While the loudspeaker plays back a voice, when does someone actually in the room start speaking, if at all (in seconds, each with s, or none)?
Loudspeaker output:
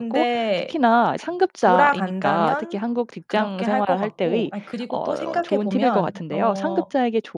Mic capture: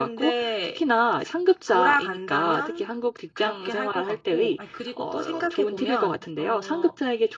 none